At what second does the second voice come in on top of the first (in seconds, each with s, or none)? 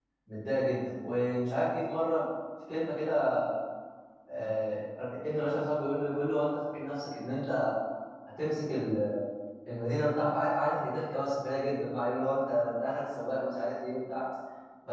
none